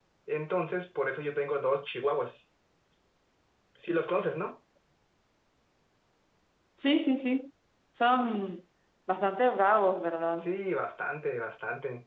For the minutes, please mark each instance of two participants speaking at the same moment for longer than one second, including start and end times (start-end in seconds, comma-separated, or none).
none